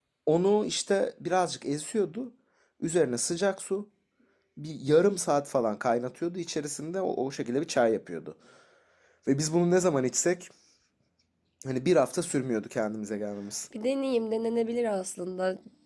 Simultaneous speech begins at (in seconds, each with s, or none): none